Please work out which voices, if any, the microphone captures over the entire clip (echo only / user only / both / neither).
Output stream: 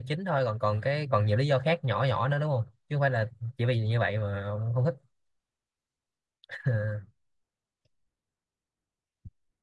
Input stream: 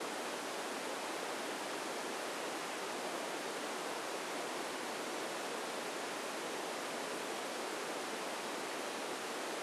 neither